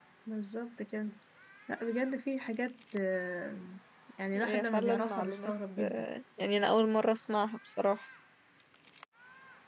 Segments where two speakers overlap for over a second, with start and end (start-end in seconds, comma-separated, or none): 4.3-6.0